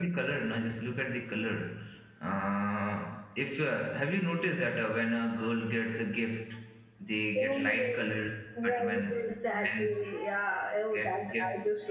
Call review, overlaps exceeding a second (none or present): present